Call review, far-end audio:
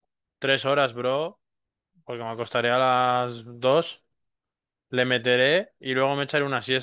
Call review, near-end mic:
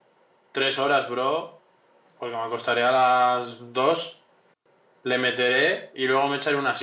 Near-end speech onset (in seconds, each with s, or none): none